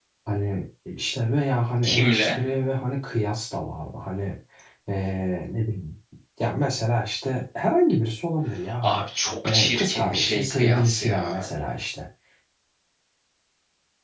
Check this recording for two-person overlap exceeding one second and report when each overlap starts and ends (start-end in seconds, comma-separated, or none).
9.4-11.5